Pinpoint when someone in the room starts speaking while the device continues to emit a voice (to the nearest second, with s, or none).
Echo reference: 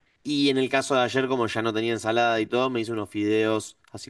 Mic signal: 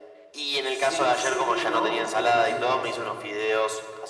1 s